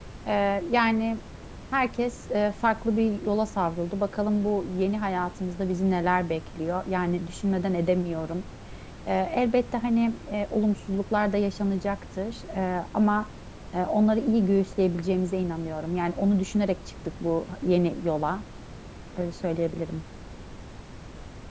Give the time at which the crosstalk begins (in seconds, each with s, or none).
none